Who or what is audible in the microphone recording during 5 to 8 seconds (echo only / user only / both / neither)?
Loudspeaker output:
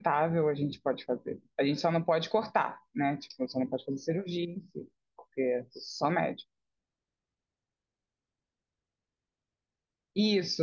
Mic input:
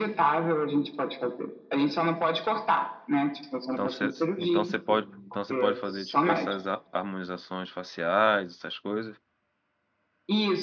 both